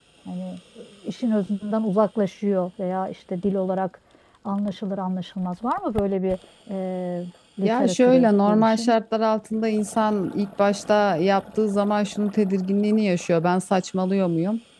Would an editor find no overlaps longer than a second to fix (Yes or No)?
No